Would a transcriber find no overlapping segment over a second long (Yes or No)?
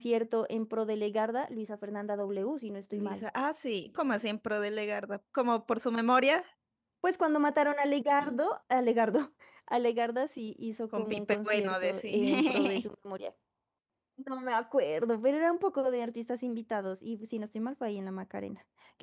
No